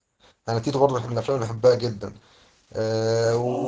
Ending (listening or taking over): listening